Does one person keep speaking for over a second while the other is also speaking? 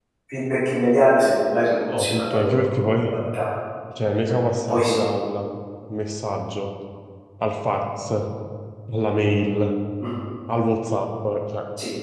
Yes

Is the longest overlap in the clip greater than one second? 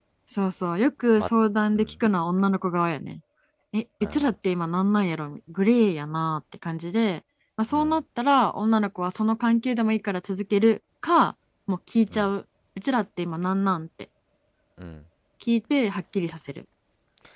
No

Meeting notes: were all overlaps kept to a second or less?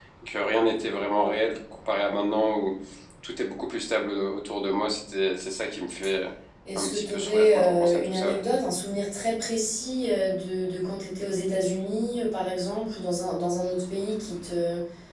No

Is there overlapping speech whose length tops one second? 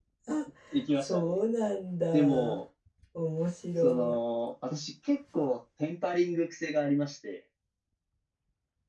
No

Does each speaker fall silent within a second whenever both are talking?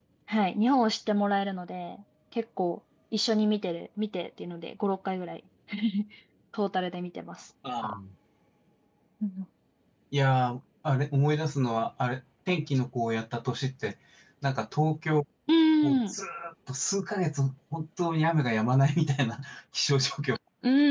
Yes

